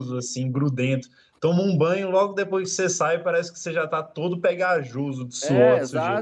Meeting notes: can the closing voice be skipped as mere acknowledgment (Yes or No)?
No